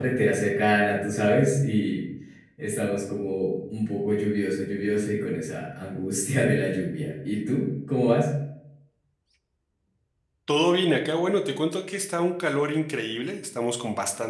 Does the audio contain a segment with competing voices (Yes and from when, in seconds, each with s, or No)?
No